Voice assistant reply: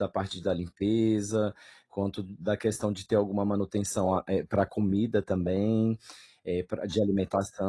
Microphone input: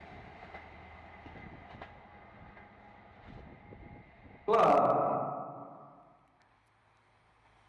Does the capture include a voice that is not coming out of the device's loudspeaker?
Yes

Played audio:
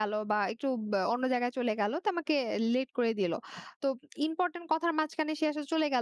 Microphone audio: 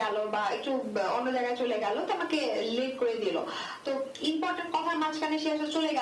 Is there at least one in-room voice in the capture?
No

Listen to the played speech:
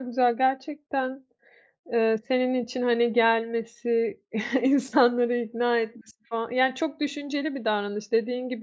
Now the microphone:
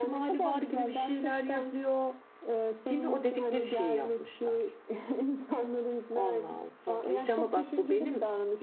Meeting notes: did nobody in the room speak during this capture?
No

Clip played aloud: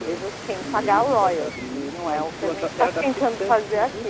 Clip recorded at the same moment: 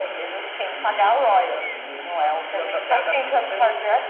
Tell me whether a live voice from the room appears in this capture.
No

